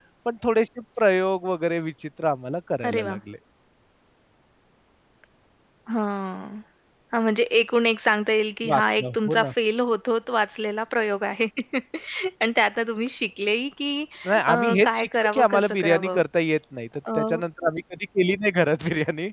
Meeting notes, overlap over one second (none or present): present